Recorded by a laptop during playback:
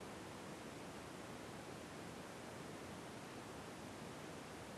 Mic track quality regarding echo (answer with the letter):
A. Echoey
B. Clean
B